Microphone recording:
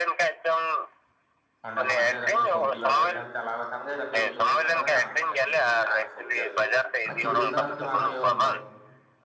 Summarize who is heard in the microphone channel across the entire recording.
both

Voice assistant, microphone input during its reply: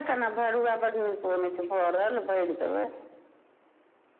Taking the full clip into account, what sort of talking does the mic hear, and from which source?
echo only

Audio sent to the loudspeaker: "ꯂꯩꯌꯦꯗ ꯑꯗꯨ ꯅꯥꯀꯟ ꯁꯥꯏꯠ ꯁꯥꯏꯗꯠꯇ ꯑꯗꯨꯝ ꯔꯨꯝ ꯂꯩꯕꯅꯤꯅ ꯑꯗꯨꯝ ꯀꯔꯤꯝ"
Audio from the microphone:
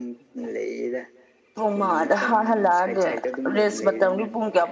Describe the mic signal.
both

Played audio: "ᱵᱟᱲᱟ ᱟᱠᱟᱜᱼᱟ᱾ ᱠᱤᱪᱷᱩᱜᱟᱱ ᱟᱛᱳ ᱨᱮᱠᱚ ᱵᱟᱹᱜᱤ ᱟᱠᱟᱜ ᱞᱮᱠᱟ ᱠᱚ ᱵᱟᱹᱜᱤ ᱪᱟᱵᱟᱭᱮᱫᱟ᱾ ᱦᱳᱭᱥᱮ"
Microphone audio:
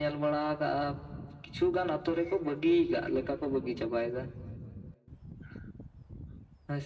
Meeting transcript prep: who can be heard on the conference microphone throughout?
echo only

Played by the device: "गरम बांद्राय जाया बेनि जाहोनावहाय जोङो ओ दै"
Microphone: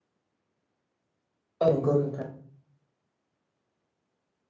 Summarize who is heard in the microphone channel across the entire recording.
user only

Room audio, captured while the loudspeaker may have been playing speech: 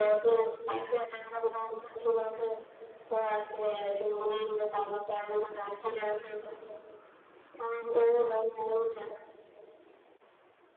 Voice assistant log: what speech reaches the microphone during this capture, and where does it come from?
echo only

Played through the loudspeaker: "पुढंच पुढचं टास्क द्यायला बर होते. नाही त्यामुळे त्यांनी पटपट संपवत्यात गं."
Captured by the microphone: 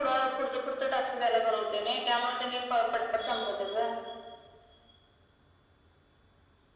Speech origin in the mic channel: echo only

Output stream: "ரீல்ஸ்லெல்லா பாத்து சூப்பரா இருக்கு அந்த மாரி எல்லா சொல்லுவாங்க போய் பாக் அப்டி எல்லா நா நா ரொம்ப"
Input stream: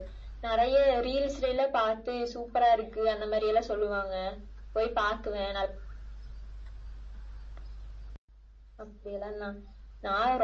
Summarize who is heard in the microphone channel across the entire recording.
echo only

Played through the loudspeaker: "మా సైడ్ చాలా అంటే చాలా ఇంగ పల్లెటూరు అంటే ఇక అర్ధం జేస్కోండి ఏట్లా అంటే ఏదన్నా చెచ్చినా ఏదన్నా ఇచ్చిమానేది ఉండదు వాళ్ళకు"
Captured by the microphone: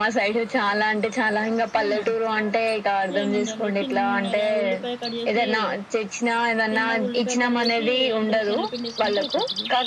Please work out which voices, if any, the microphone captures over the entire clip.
both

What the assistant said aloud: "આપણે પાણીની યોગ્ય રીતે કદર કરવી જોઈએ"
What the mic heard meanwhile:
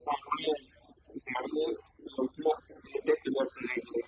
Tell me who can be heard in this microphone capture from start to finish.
echo only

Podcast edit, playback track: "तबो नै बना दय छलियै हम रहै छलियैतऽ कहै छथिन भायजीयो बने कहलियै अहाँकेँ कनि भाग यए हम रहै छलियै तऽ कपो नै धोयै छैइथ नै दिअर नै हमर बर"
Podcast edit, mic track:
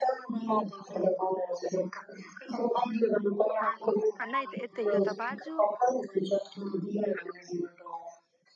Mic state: both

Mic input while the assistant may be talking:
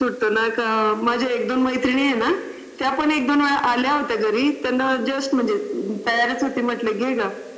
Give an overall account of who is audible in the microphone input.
echo only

